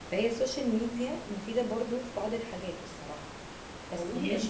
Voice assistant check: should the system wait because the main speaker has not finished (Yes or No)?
No